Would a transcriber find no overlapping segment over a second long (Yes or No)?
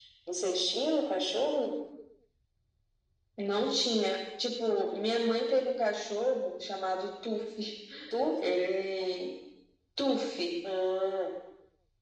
Yes